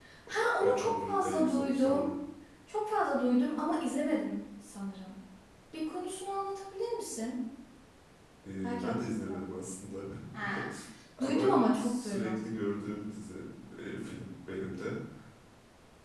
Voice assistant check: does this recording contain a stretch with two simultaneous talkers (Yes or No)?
Yes